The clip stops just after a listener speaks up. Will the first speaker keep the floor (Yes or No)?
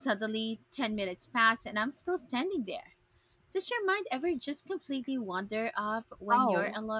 No